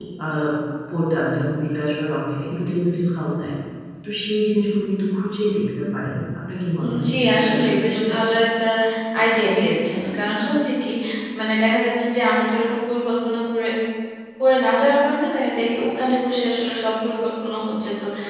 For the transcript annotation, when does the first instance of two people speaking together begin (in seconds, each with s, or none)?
6.8 s